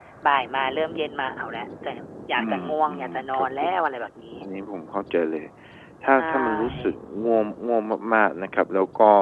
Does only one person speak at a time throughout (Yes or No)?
No